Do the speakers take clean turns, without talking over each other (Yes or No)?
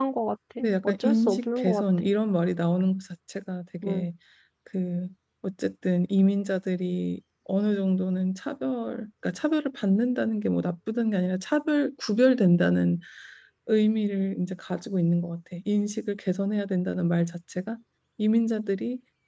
No